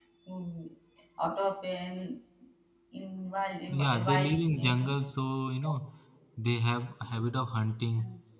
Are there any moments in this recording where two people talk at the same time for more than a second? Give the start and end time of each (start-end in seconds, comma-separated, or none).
3.7-5.0